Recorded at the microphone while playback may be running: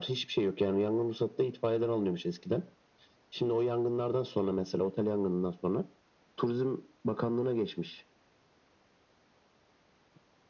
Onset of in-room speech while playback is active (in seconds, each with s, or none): none